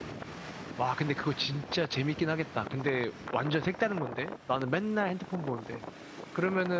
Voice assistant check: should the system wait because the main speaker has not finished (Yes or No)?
Yes